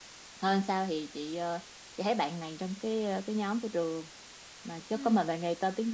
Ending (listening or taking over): listening